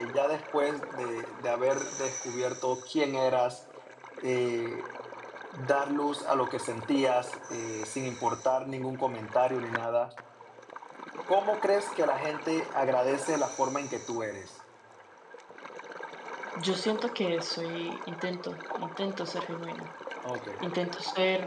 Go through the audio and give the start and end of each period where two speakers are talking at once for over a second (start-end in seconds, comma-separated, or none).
none